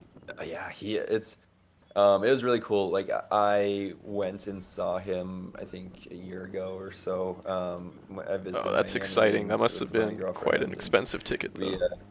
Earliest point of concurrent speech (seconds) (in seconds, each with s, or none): 8.5 s